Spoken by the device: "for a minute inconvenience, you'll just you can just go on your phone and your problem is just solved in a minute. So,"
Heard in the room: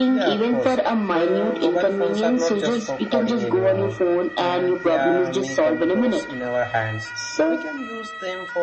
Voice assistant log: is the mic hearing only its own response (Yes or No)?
No